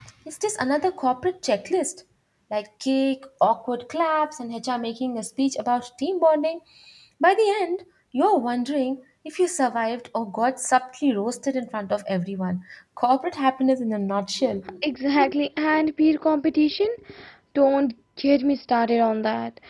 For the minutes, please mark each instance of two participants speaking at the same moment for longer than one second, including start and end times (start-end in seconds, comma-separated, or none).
none